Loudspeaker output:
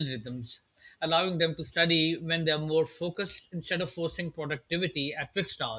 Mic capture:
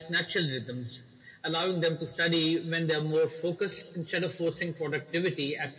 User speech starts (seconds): none

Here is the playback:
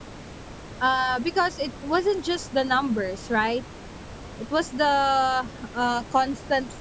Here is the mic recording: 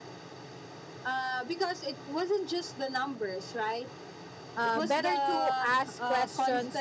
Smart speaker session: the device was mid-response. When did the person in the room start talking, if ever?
5 s

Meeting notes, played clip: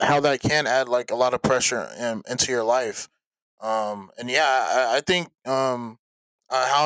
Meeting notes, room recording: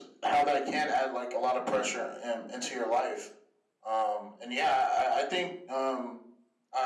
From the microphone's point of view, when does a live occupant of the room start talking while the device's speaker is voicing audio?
none

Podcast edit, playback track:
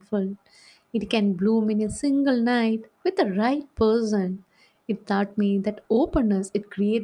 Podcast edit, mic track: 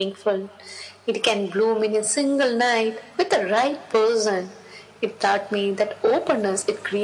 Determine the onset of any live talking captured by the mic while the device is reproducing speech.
none

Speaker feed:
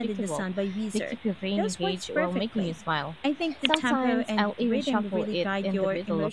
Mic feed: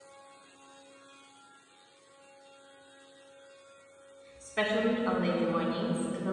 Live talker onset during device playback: 4 s

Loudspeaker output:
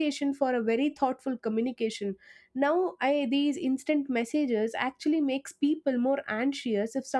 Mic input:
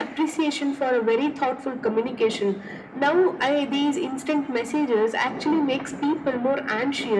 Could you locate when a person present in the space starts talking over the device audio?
none

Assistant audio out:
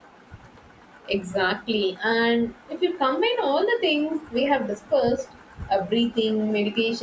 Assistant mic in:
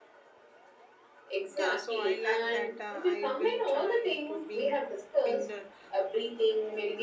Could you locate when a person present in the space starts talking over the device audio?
1 s

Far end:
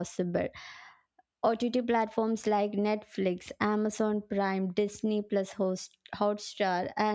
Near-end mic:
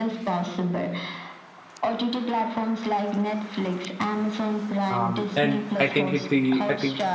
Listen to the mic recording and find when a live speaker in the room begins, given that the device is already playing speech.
5 s

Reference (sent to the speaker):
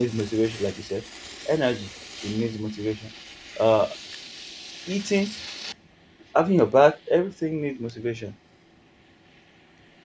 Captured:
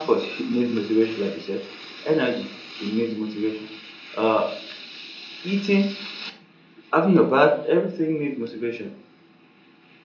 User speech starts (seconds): none

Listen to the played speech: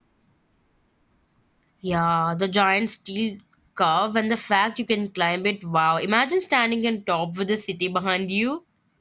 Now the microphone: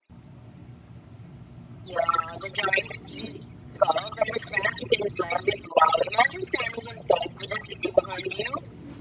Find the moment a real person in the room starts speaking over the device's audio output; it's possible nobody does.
none

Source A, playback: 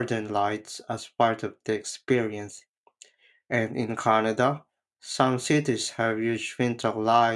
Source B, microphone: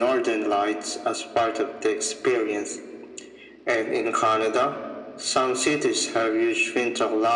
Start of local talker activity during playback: none

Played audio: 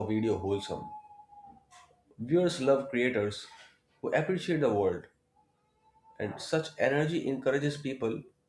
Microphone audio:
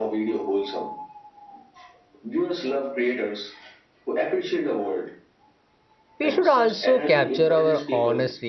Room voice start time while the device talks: 6 s

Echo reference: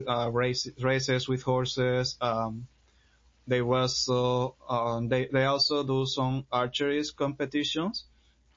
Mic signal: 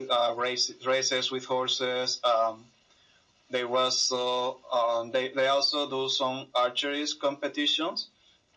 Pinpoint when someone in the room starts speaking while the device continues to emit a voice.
none

